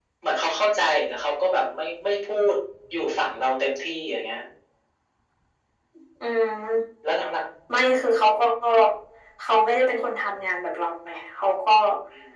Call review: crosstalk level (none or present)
none